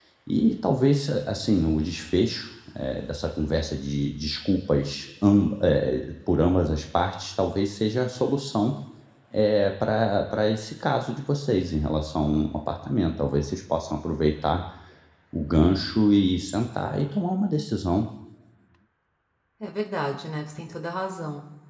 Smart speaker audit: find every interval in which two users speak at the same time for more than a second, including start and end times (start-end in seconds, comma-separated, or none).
none